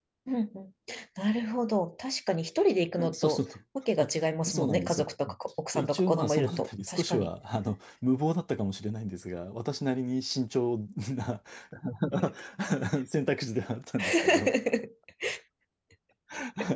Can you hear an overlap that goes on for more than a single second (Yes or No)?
Yes